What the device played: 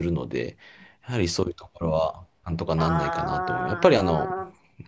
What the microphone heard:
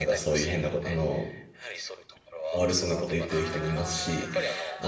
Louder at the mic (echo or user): user